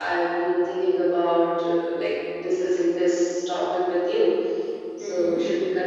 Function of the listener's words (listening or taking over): taking over